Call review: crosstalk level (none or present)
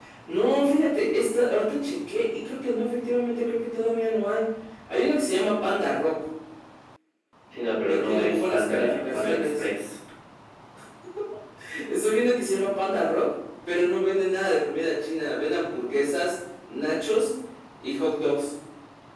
present